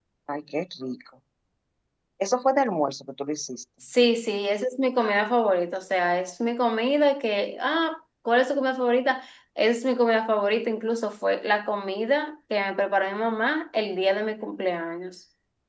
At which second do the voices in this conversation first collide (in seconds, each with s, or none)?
none